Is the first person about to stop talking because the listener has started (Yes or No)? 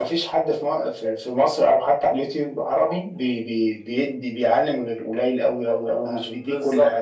Yes